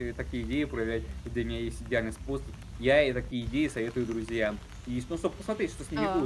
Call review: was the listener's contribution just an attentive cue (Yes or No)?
Yes